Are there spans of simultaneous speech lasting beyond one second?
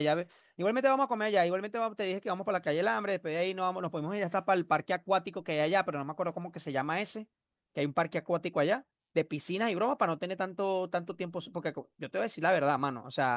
No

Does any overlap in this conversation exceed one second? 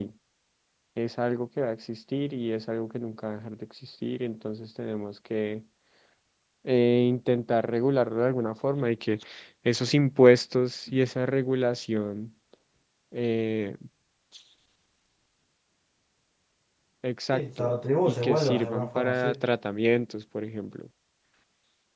Yes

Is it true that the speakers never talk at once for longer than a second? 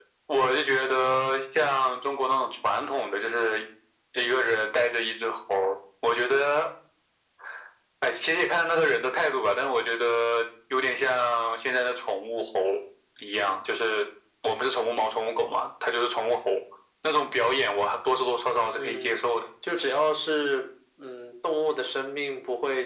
Yes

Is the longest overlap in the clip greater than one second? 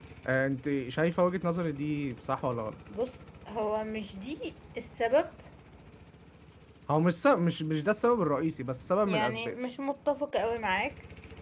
No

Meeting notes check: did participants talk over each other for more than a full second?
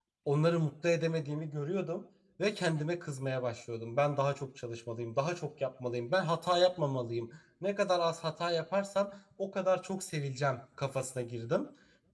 No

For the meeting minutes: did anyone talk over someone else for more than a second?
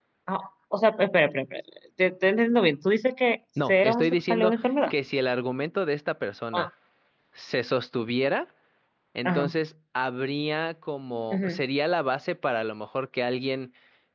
Yes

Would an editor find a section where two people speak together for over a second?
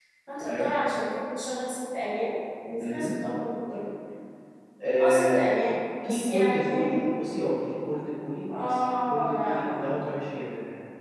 Yes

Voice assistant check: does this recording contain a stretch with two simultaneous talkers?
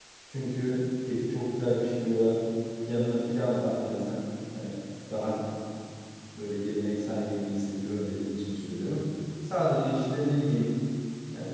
No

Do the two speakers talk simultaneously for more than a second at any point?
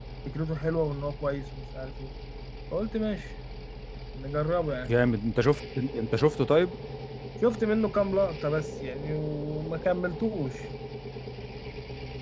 No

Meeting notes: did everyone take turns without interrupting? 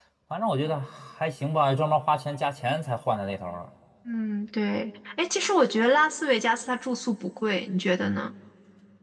Yes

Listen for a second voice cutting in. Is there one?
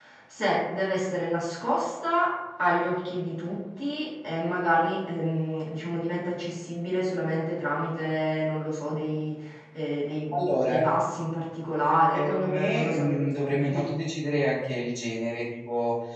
Yes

